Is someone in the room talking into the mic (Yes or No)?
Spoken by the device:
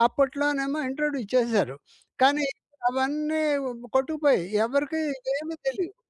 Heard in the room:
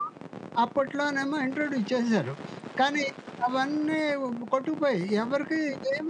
No